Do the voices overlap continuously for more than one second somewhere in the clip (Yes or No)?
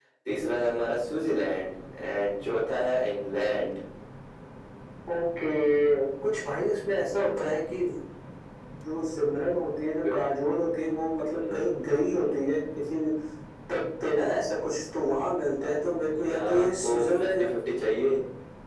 Yes